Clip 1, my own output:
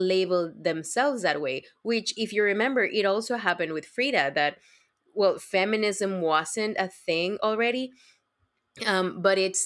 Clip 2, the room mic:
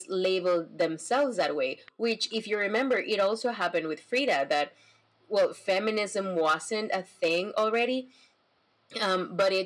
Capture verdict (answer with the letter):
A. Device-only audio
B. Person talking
A